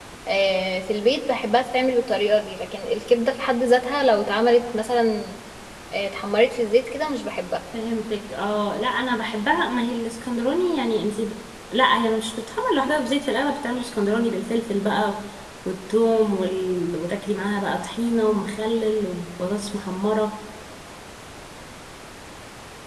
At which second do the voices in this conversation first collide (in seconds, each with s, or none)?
none